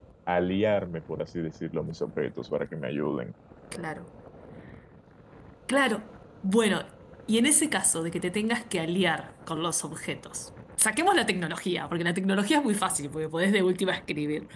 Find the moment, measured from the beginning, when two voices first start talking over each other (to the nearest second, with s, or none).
none